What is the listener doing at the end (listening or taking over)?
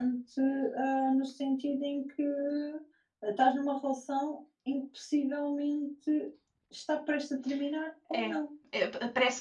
taking over